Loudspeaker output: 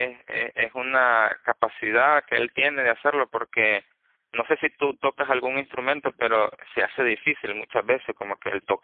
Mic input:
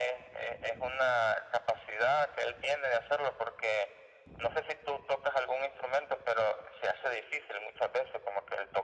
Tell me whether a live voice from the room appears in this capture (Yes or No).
No